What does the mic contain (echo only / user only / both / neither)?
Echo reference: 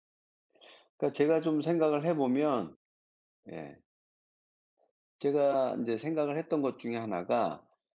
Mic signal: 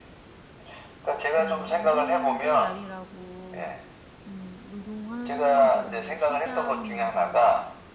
both